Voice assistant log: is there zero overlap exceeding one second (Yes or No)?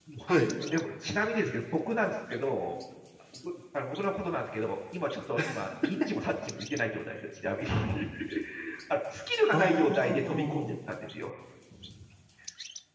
No